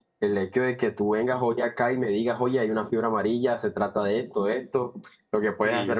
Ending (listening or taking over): listening